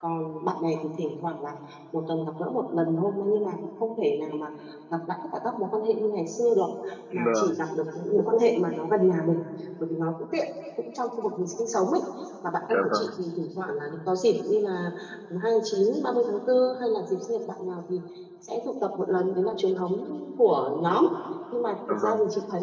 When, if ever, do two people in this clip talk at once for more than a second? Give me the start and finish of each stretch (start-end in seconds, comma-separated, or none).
none